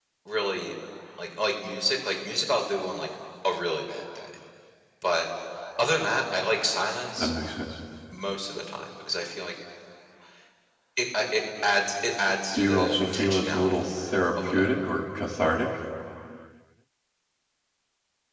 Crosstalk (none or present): present